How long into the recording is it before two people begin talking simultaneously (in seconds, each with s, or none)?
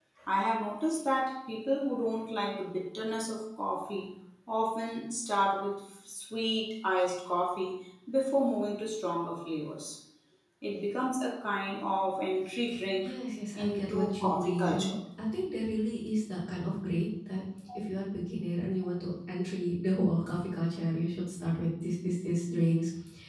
13.6 s